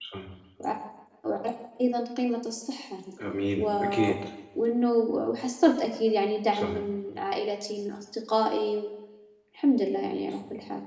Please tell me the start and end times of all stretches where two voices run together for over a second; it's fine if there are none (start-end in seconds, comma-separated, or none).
none